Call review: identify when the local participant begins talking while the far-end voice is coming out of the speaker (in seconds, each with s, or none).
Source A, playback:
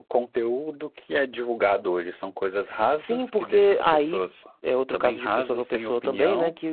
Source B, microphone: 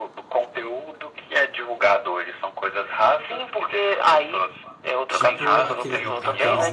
5.1 s